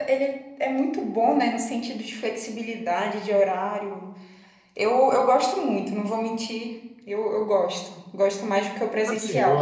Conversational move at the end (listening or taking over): taking over